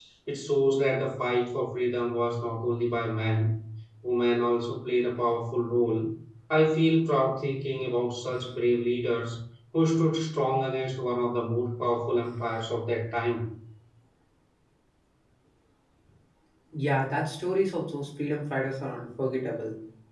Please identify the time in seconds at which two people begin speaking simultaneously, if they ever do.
none

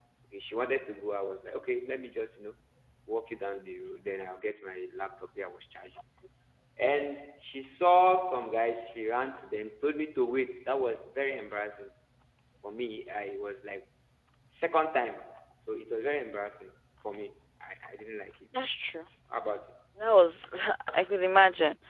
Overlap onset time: none

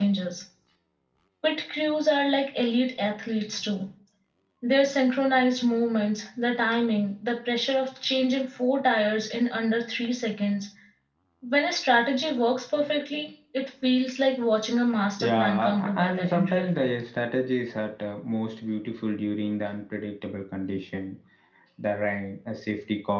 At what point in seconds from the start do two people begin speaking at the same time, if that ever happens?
15.2 s

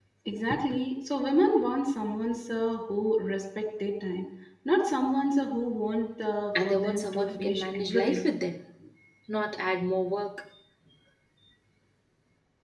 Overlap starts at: 6.6 s

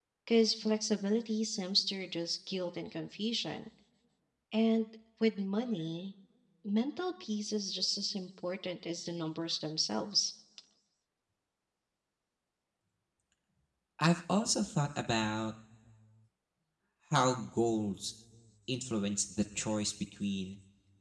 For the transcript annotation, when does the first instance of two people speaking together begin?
none

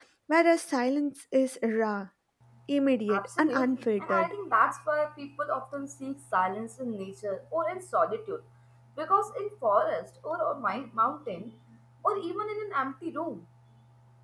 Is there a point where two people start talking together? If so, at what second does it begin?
3.1 s

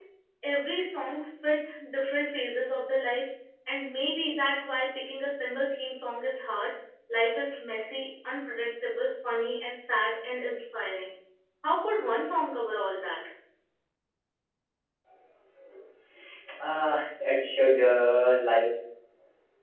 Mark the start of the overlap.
none

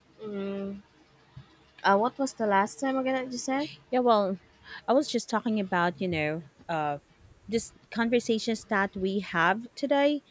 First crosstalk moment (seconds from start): none

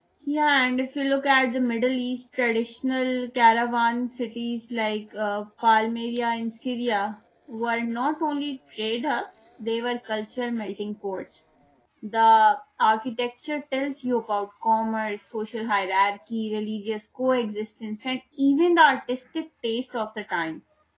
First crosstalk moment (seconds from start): none

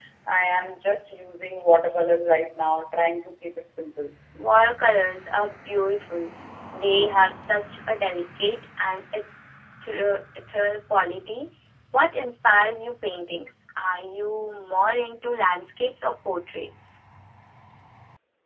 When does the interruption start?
none

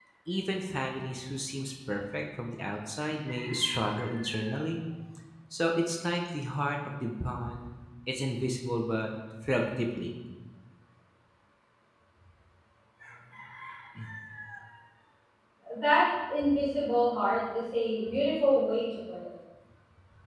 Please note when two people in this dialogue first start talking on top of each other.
none

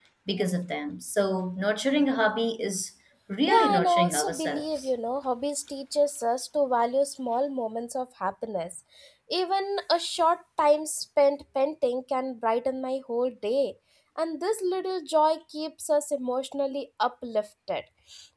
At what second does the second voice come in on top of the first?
3.5 s

